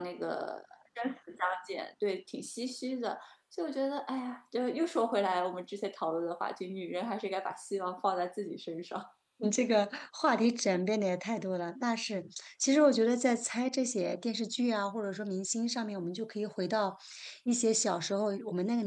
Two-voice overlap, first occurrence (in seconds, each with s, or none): none